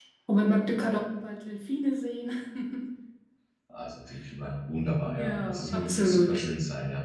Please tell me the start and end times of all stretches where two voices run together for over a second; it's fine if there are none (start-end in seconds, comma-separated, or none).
5.0-6.4